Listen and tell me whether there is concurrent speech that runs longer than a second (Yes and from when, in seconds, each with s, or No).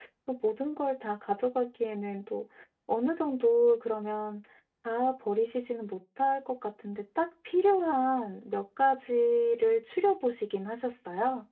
No